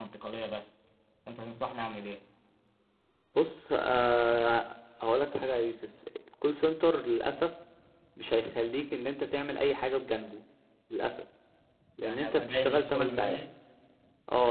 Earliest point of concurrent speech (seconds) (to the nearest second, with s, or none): 12 s